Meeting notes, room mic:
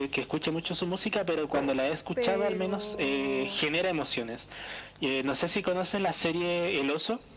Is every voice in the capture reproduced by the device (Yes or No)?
No